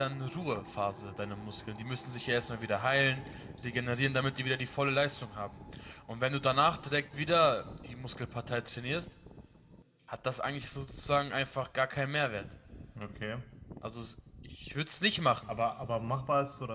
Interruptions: none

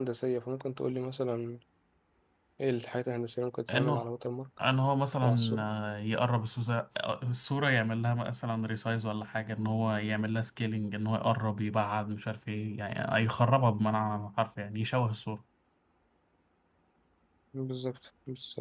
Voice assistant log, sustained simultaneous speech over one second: none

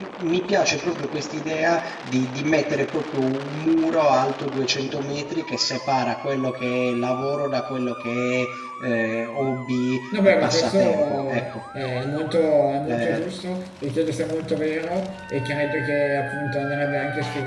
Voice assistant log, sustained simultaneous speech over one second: present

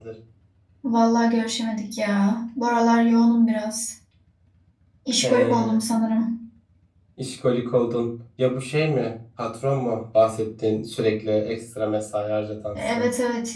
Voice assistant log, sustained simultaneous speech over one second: none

